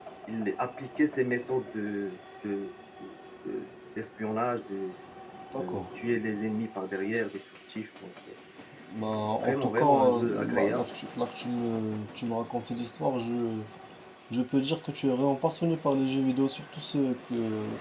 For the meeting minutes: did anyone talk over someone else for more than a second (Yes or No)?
Yes